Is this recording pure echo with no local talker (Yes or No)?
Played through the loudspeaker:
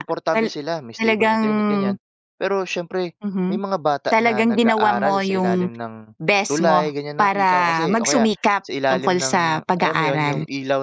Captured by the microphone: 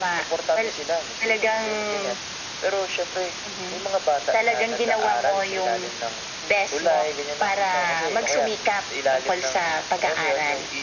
Yes